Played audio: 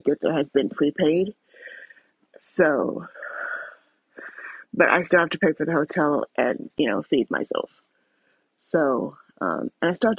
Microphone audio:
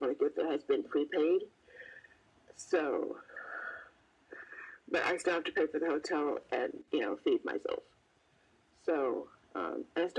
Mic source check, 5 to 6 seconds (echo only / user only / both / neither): echo only